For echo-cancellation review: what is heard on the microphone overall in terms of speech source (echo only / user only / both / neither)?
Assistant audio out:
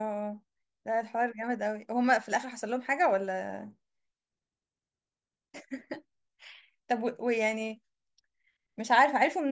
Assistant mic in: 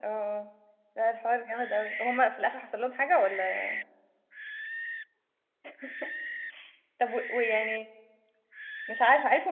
echo only